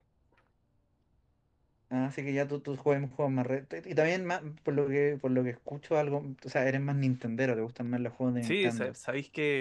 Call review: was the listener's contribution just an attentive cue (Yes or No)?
No